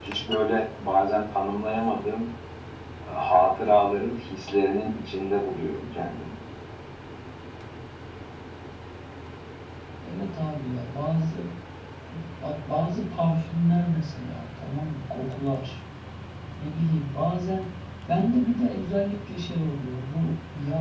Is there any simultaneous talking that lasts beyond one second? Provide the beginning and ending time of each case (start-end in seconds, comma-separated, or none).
none